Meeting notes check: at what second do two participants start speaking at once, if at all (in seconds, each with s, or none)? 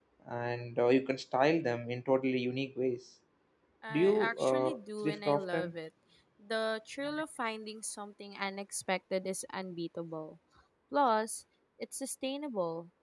3.9 s